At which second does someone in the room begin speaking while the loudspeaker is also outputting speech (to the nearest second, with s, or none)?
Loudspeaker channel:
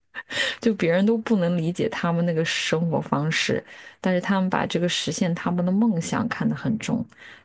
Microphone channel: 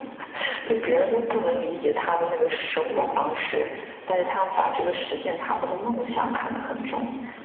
3 s